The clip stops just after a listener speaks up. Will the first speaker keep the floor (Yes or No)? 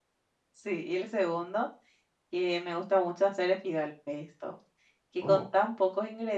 Yes